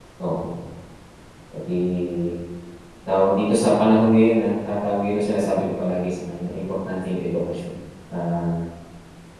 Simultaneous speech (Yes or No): No